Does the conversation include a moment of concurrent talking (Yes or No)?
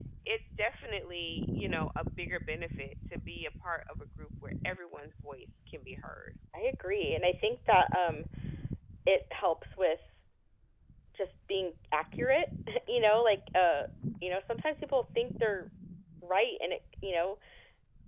No